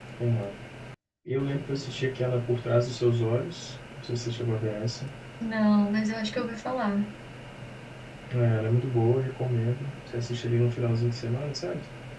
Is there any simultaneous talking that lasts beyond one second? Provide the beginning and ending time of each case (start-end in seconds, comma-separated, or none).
none